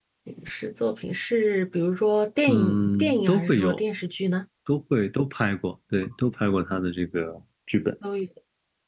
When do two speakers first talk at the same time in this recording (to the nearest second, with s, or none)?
2 s